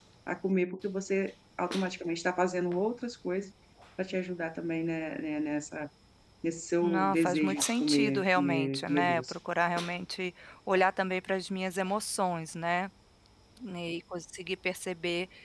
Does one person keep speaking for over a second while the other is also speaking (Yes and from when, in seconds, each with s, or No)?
Yes, from 6.8 s